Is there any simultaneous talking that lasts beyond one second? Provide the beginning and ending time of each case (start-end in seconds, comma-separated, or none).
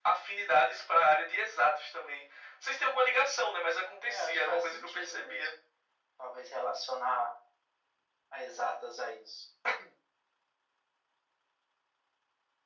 4.1-5.5